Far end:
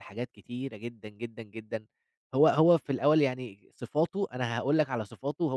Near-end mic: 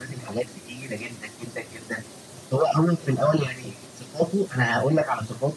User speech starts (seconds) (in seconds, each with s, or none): none